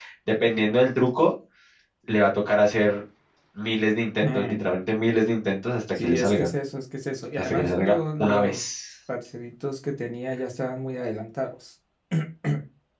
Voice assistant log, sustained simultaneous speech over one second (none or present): present